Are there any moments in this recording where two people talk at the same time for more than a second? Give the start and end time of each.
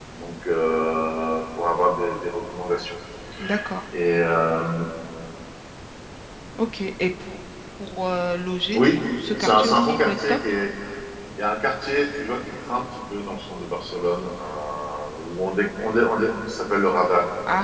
8.8-10.4

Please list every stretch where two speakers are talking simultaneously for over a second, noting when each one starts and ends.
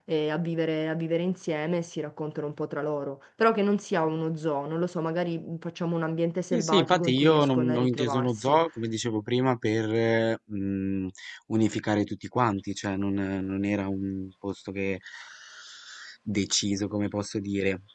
6.5-8.6

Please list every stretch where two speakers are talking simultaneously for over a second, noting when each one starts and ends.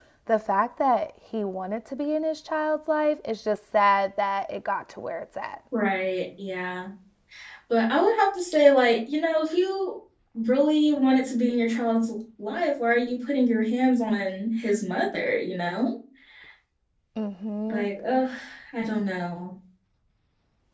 none

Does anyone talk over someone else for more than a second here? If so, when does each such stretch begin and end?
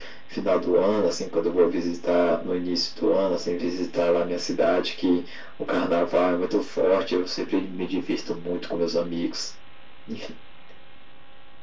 none

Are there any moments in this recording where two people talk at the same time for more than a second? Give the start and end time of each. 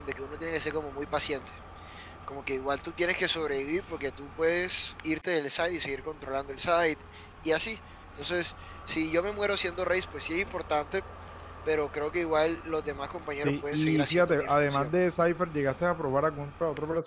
13.4-14.9

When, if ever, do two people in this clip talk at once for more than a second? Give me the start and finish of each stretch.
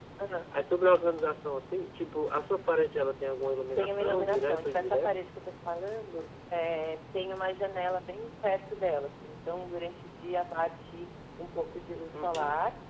3.8-5.1

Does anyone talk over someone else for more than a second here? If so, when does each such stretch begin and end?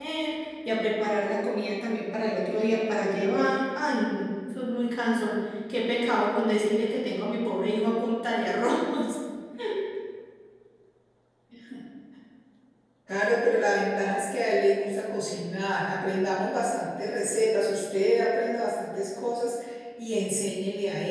none

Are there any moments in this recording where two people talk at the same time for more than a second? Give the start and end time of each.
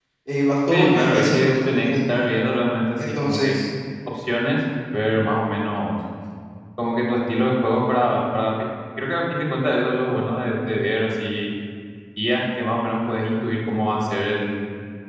0.7-2.0

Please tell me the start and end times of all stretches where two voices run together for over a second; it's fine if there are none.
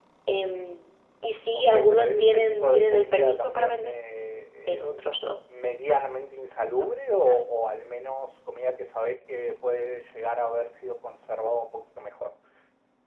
1.5-3.9

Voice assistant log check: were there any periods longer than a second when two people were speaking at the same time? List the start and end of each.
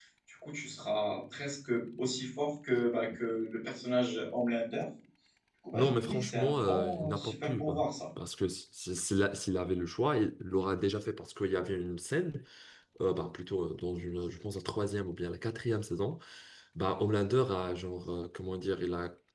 5.7-7.9

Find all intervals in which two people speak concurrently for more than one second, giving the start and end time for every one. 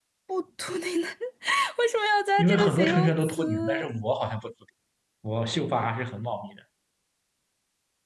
2.4-3.9

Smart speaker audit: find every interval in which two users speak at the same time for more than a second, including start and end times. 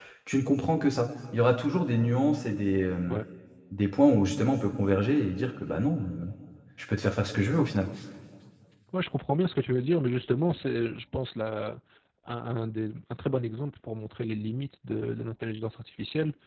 none

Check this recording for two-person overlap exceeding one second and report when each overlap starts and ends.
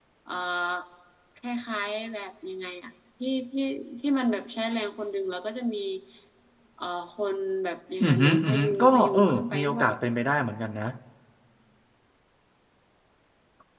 8.0-9.9

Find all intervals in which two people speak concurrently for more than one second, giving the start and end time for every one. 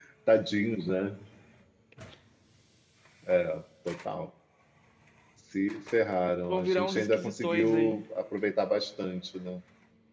6.5-8.0

